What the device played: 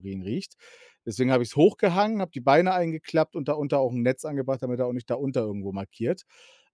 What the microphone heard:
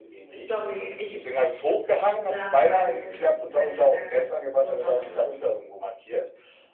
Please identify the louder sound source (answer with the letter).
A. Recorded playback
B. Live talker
A